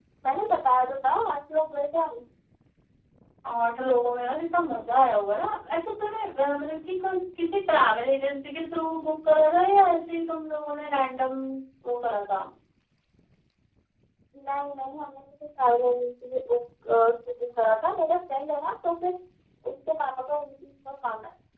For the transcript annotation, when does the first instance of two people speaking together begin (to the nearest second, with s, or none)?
none